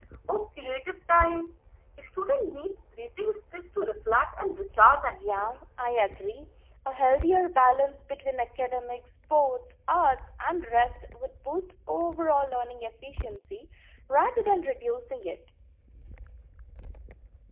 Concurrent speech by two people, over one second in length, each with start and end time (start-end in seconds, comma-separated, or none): none